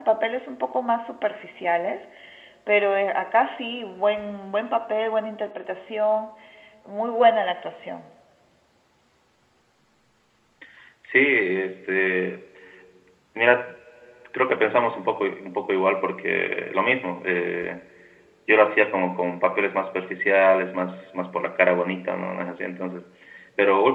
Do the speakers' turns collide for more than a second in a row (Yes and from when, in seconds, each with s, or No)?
No